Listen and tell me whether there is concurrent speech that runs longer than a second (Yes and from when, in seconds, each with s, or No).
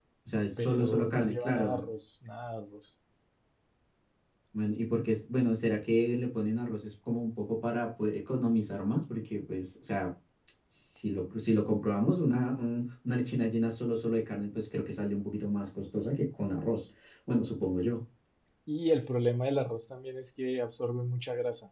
Yes, from 0.6 s